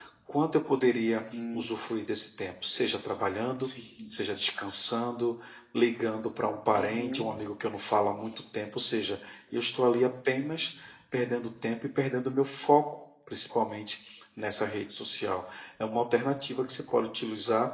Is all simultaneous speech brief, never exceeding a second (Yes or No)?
Yes